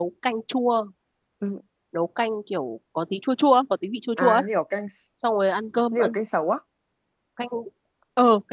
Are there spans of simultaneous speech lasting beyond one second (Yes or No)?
No